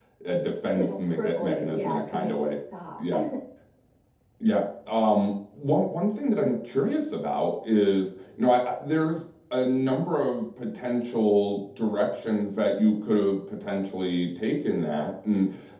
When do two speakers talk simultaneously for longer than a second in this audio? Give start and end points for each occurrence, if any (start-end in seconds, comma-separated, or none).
0.7-2.5